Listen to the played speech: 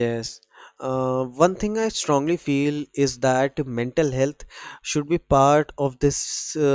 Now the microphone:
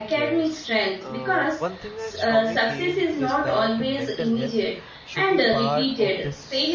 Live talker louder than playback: Yes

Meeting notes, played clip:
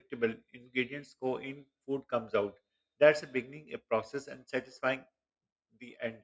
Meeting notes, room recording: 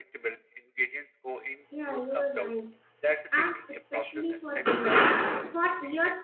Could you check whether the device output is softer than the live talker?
Yes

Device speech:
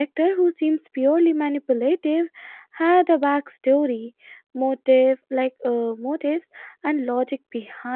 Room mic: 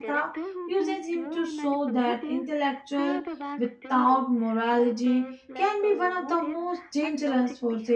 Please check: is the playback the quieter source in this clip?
Yes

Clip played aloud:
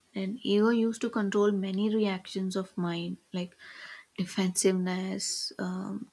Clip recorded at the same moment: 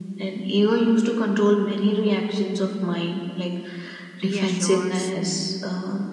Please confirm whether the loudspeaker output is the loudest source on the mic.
Yes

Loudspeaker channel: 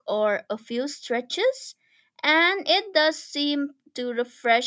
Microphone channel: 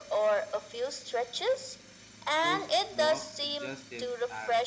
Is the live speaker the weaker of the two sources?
Yes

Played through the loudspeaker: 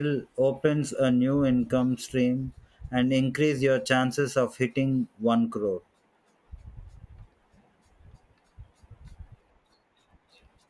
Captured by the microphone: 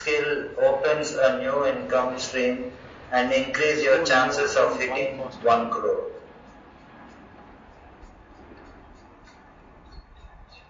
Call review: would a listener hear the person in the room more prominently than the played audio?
No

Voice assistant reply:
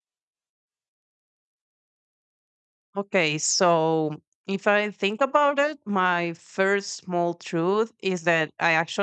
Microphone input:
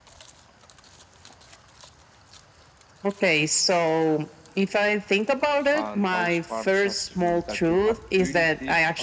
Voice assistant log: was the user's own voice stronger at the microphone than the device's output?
No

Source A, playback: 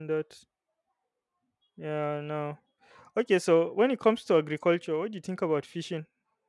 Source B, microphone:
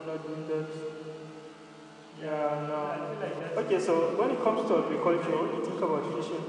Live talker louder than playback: No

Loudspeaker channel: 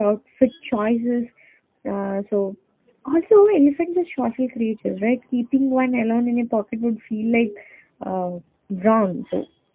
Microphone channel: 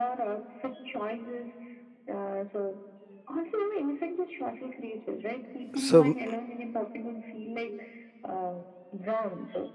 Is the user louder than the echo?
Yes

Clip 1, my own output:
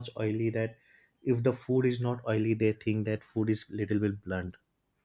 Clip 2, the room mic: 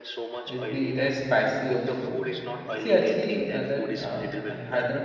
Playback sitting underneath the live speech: Yes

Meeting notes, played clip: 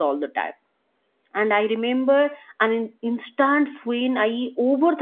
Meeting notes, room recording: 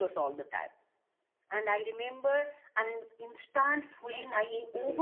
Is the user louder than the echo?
No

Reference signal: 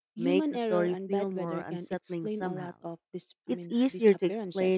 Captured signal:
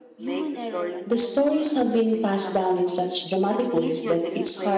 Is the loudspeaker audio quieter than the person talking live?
Yes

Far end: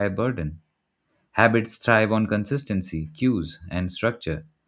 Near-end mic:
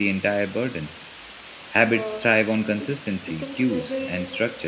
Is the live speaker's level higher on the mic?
No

